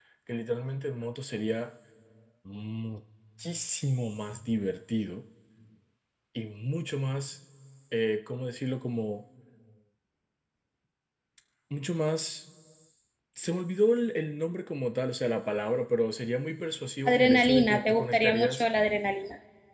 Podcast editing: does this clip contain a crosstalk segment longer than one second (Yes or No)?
Yes